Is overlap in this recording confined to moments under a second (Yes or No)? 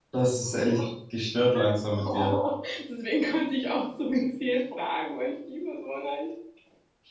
Yes